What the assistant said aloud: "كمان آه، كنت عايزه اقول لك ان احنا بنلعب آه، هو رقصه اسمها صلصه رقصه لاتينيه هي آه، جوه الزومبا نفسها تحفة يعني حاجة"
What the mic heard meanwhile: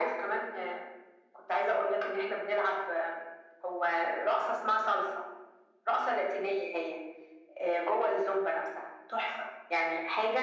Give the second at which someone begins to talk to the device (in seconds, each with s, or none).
none